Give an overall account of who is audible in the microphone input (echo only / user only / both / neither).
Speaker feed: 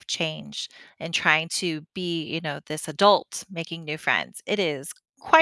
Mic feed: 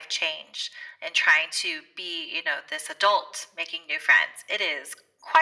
echo only